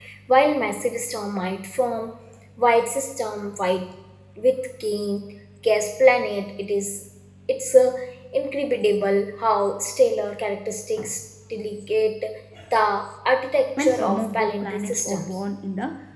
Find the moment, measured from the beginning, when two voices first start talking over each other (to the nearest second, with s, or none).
14 s